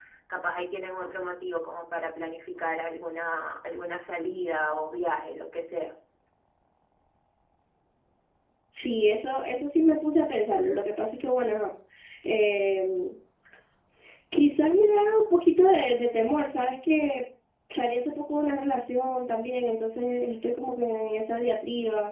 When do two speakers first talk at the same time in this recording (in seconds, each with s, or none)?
none